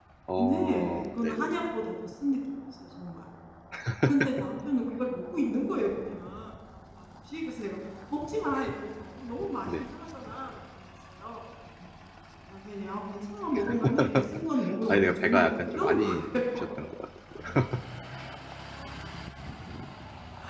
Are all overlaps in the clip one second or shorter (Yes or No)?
No